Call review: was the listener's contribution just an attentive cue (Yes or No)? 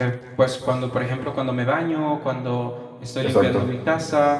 Yes